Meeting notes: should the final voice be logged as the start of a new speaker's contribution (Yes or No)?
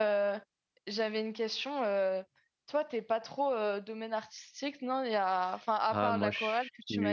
Yes